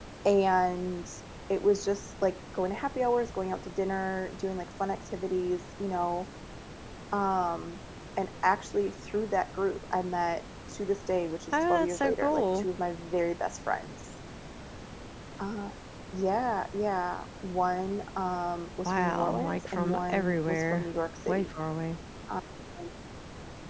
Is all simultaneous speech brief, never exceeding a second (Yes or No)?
No